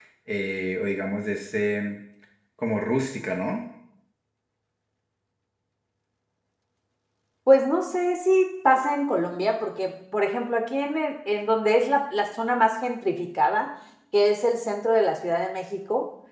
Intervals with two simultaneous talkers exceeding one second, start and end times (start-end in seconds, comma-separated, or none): none